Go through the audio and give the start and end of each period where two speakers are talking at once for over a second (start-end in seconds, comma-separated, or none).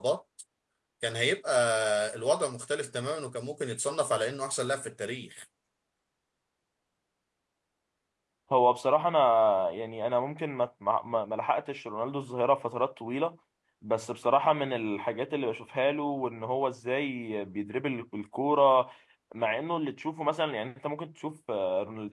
none